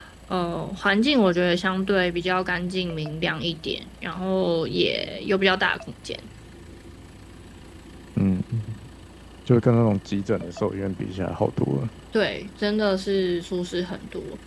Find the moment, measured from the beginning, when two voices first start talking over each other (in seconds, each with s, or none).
none